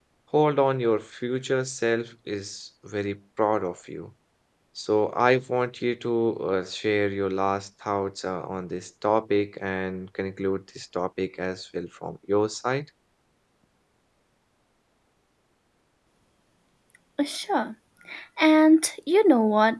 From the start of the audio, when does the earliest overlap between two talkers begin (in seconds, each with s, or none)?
none